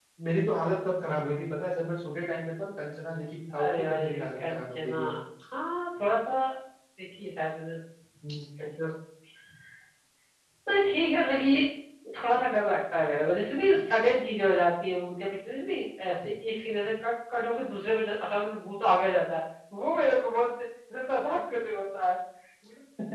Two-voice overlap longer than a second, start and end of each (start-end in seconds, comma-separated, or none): 3.6-5.0